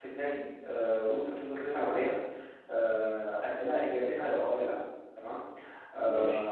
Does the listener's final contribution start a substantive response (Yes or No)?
No